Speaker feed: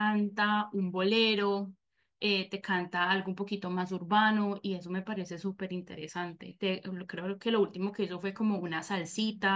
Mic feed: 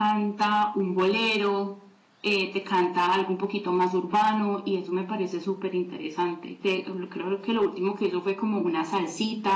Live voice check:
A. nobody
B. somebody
A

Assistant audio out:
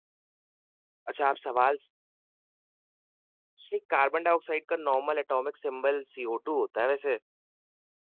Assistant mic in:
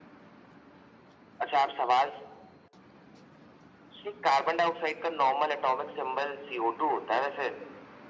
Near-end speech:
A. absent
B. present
A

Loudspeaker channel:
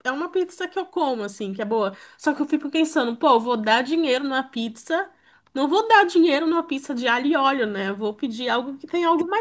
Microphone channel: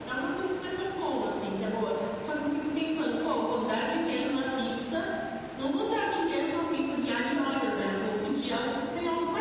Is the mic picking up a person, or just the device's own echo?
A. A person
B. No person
B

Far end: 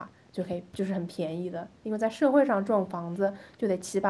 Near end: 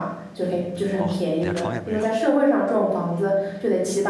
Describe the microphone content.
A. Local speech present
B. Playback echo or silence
A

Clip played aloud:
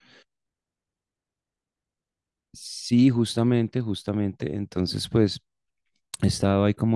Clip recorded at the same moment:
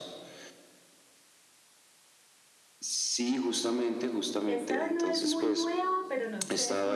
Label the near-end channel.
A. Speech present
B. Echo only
A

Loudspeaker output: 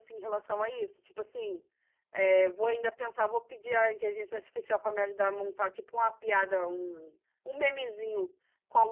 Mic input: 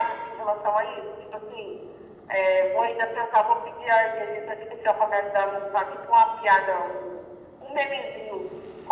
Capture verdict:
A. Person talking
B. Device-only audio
B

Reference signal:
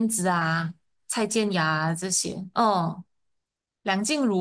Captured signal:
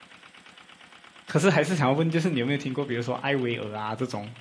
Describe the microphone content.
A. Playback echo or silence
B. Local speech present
B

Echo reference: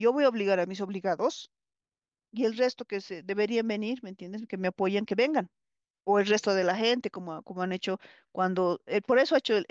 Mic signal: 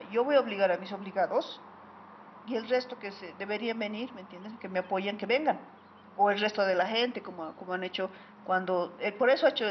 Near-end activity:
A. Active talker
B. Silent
B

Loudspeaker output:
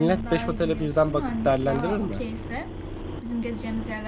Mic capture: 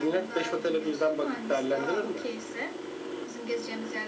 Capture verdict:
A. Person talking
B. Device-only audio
B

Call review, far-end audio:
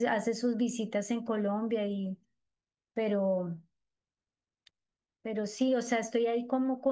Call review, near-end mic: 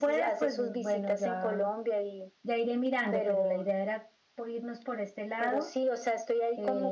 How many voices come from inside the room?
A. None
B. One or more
B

